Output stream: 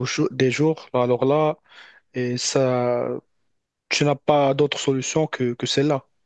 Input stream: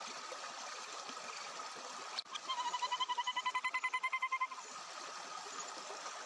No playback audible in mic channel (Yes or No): Yes